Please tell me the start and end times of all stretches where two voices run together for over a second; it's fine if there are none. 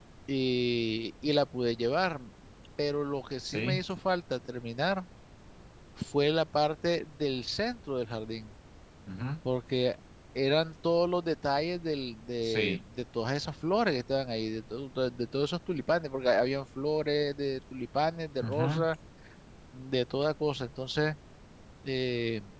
none

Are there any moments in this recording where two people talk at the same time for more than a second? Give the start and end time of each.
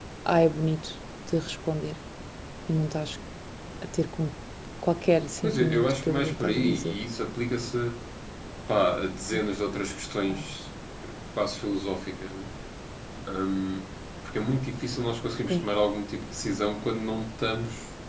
5.4-7.0

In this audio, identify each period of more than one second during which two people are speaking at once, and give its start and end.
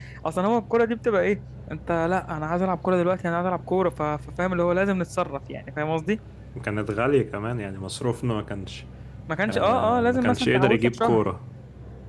9.5-11.2

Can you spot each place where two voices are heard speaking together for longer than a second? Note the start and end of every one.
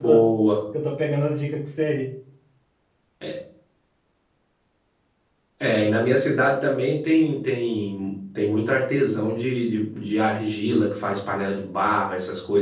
none

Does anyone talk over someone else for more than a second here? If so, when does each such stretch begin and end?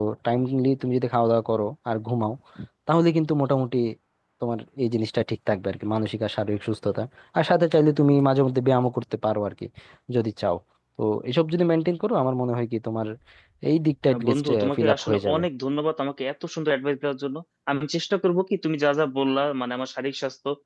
14.1-15.4

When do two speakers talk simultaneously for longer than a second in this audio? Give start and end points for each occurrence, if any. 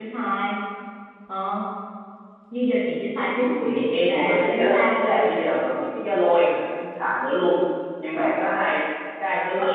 3.6-5.2

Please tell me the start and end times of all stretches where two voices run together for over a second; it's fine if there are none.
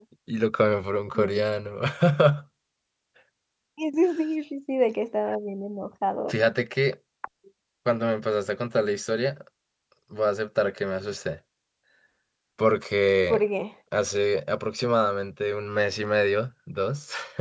none

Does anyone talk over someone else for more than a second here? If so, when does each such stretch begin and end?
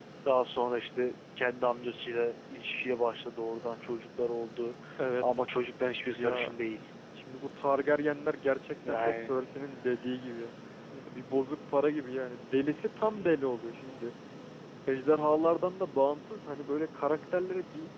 none

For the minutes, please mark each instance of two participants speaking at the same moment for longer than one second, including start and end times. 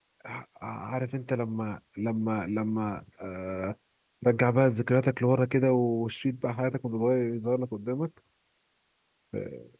none

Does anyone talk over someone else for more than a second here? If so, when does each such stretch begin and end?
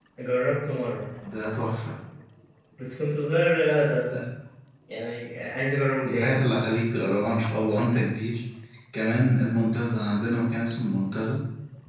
none

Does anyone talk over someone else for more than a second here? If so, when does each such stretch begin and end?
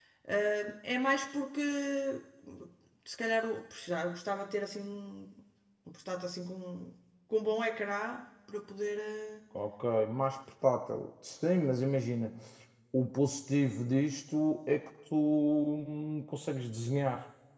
none

